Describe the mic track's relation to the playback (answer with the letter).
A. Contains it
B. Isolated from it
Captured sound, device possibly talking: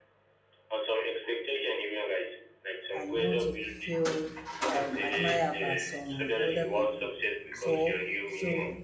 A